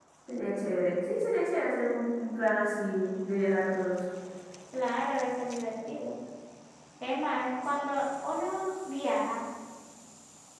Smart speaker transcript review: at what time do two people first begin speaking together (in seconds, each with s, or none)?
none